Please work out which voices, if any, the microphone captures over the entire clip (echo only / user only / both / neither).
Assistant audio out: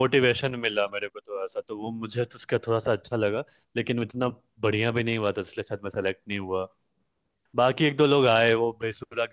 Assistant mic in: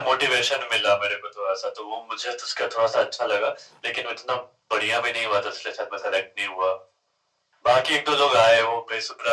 echo only